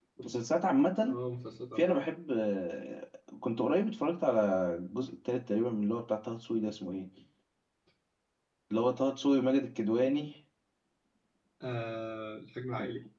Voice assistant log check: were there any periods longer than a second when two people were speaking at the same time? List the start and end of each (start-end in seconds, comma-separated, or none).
none